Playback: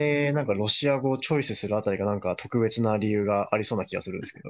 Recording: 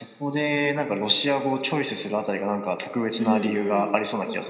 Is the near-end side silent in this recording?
No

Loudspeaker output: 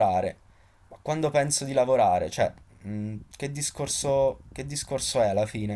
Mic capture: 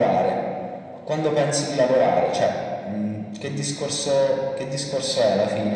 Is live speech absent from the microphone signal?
Yes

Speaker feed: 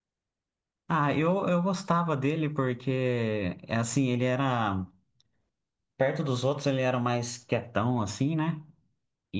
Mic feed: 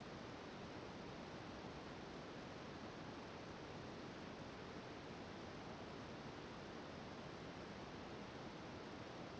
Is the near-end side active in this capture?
No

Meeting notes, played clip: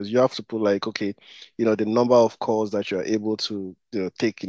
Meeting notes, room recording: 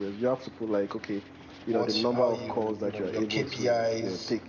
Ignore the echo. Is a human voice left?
Yes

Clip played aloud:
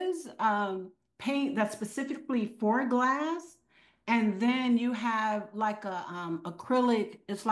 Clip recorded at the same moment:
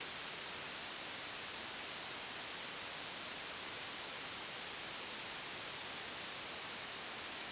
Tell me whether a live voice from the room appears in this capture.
No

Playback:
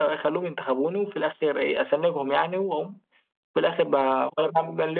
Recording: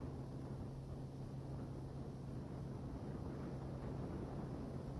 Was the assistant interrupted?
No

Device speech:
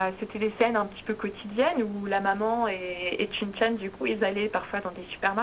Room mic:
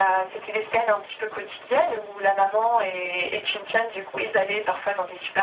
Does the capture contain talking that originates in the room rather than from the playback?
No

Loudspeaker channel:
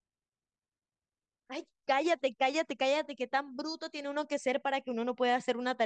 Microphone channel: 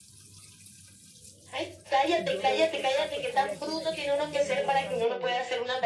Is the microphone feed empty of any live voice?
No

